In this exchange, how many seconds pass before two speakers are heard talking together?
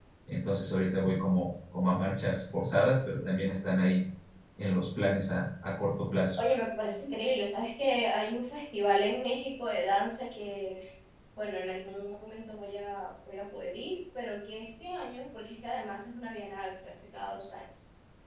none

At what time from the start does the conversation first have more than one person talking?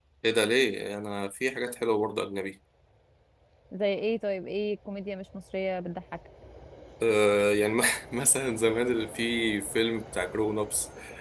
none

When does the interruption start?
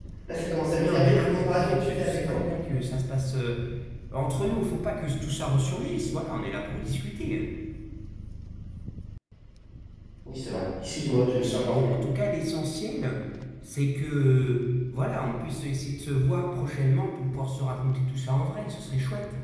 0.8 s

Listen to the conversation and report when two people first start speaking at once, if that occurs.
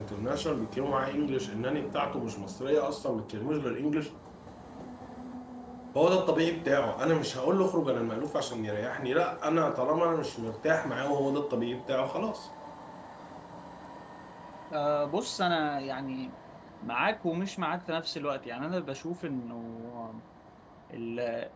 none

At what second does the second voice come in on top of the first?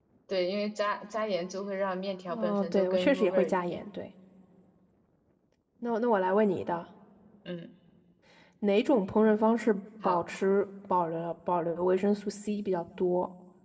2.3 s

